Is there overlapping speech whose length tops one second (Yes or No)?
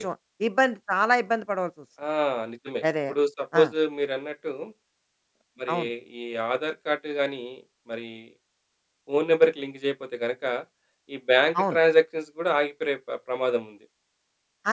No